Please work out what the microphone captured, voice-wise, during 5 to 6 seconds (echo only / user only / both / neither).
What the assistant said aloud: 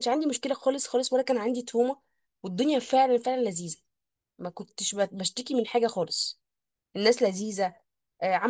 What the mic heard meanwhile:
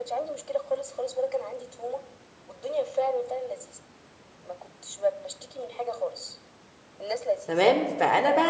echo only